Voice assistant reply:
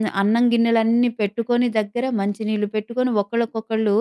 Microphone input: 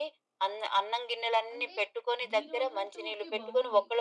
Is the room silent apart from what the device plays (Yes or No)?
No